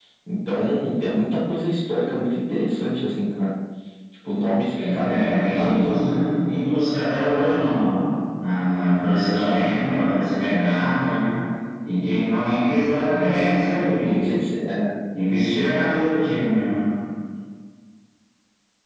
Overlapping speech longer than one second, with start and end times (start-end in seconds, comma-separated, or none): 4.8-6.1